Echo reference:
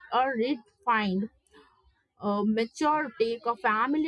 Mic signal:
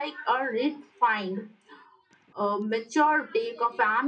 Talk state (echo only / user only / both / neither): echo only